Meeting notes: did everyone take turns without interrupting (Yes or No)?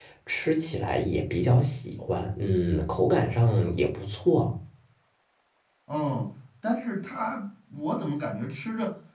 Yes